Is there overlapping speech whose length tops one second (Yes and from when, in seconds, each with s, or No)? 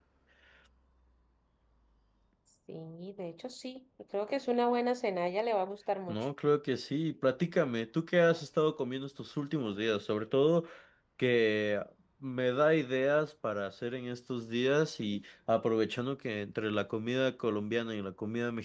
No